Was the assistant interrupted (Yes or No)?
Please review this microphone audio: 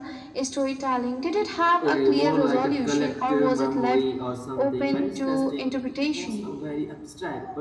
Yes